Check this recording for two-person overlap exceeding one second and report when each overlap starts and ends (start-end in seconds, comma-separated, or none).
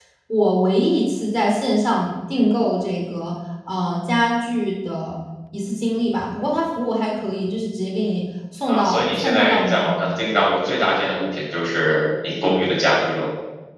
8.7-9.9